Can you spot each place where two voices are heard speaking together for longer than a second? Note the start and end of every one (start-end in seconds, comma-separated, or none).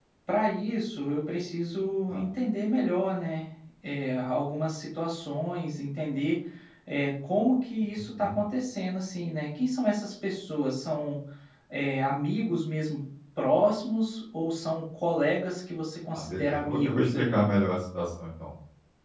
16.1-17.4